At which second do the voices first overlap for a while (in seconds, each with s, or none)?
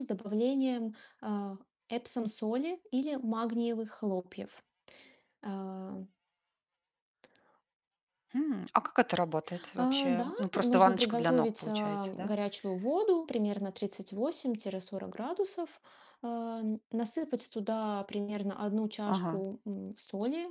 9.8 s